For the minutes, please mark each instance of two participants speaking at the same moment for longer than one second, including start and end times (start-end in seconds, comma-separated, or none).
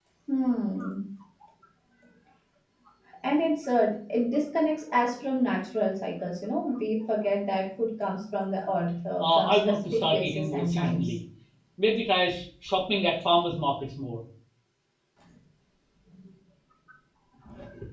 9.2-11.2